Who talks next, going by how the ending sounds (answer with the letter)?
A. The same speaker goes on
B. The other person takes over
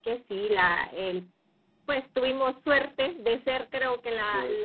A